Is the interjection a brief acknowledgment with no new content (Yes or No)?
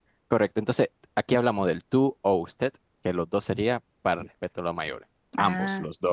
Yes